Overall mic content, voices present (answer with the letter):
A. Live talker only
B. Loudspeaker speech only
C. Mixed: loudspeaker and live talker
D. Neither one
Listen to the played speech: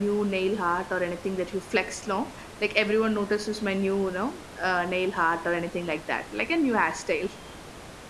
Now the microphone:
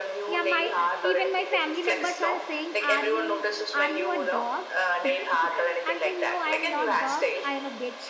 C